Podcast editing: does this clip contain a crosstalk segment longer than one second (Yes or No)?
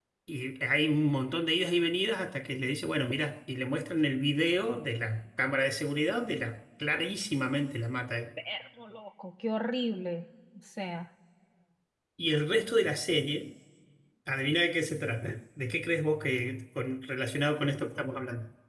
No